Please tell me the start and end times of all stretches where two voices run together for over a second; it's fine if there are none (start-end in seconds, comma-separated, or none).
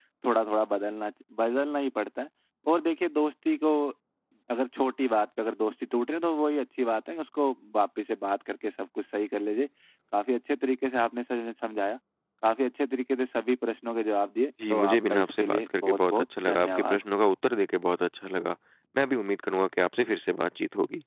14.7-17.0